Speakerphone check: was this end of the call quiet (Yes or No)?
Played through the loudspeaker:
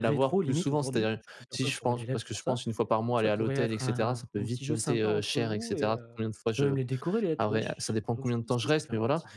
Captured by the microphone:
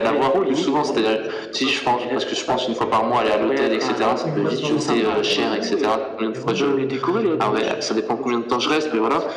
No